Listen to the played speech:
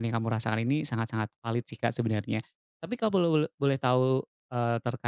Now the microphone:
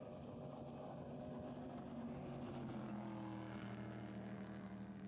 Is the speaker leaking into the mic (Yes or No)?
No